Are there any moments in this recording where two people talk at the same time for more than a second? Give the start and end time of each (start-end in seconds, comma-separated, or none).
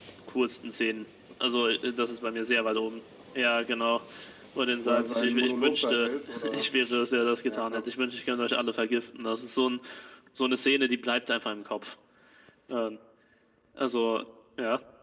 4.8-6.7